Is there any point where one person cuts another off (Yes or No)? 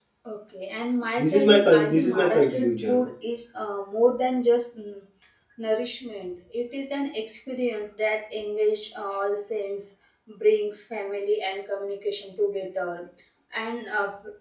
Yes